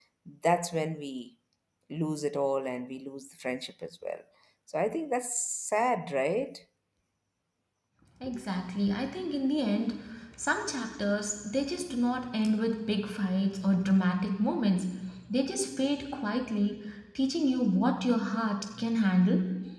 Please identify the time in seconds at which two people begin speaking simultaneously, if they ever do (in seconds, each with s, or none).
none